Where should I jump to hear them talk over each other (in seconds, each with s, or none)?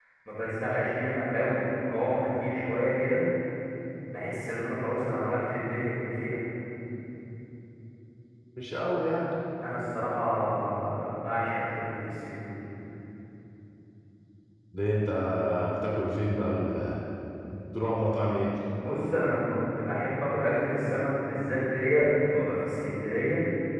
none